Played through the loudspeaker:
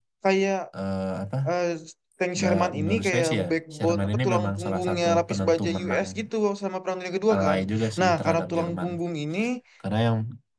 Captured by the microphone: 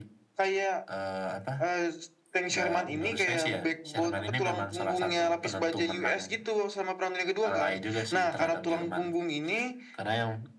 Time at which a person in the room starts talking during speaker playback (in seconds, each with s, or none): none